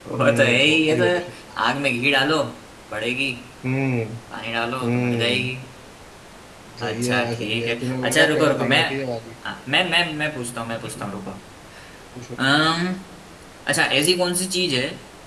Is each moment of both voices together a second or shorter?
No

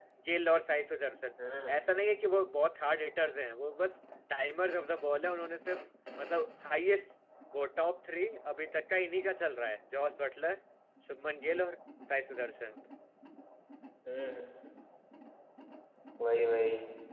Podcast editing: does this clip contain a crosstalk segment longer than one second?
No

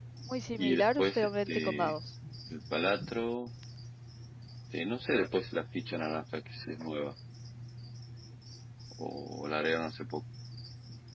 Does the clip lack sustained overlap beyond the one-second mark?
No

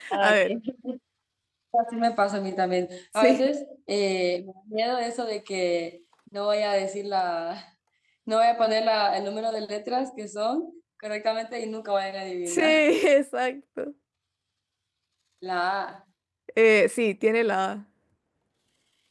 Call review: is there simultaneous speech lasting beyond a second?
No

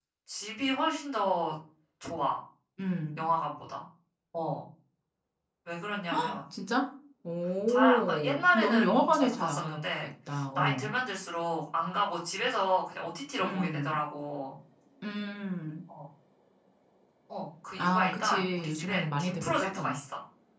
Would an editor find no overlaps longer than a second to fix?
No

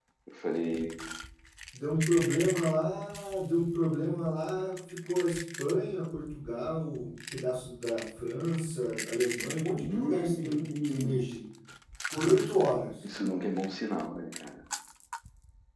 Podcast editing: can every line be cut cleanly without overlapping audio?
No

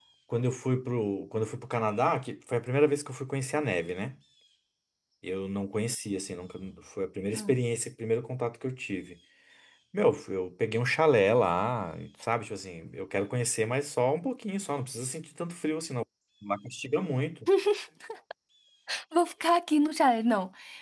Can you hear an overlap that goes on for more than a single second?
No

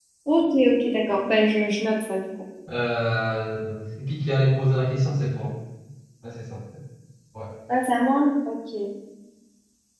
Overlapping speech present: No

